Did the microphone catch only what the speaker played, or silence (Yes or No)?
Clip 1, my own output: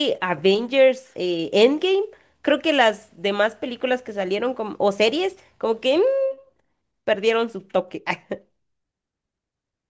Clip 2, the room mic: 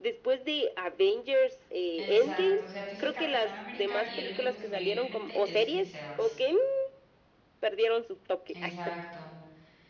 No